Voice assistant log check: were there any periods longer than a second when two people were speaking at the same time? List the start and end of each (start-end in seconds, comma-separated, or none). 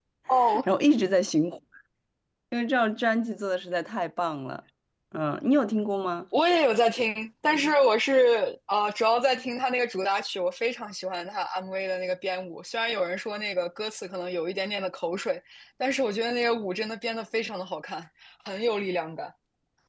none